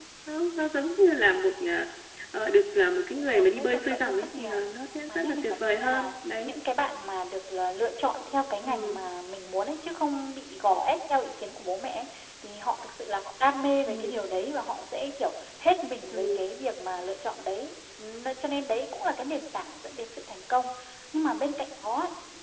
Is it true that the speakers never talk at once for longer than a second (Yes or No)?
No